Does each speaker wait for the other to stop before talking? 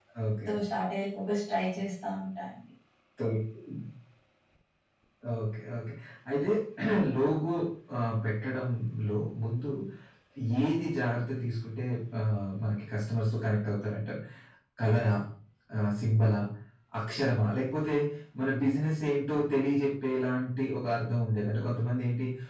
Yes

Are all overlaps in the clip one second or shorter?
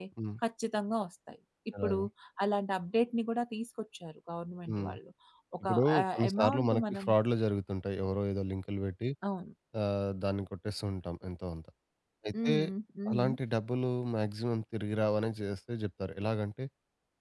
No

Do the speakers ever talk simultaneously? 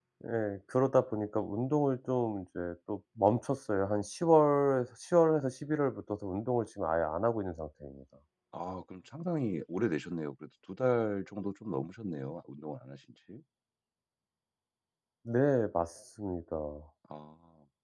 No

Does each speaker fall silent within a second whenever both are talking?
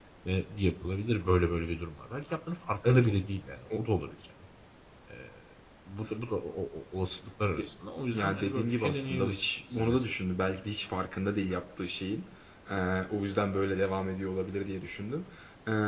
No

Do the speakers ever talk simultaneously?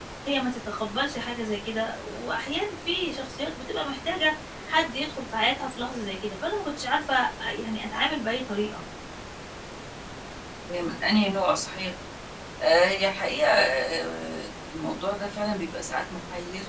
No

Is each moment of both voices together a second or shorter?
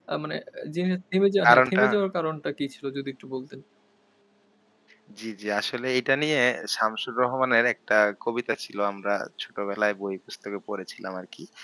Yes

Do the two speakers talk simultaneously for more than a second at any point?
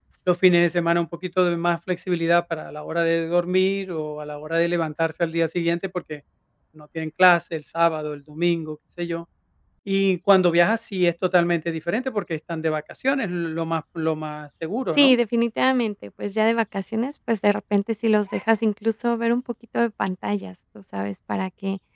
No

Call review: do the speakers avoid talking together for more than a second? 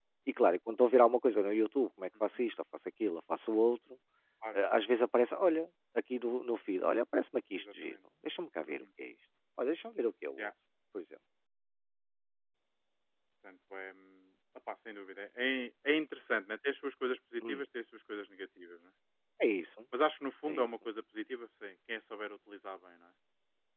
Yes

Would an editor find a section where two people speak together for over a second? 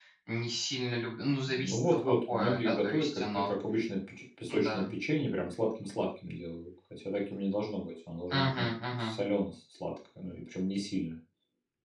Yes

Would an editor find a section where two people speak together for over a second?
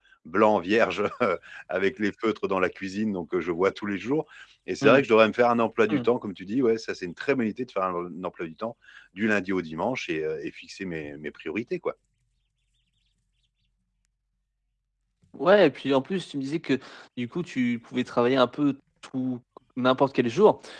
No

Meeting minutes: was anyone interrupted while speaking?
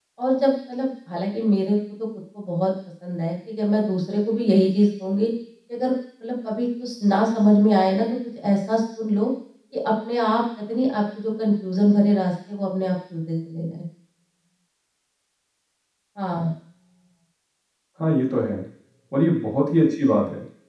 No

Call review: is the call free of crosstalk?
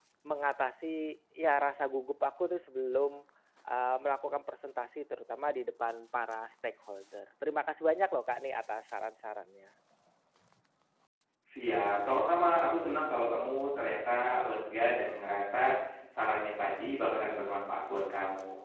Yes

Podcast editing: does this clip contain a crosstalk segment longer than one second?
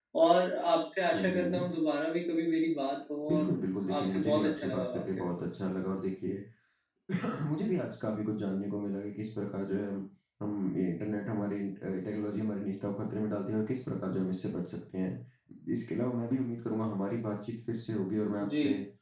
Yes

